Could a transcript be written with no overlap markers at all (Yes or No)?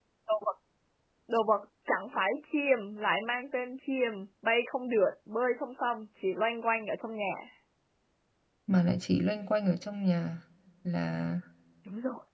Yes